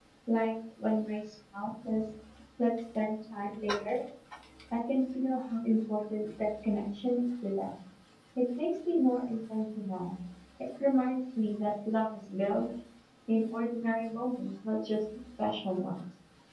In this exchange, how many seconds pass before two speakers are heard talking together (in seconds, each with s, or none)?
none